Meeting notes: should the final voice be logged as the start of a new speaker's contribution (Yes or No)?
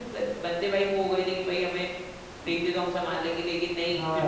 No